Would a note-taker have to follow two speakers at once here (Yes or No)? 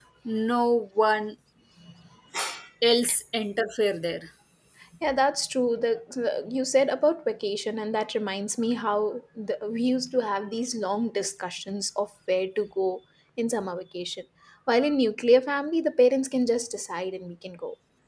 No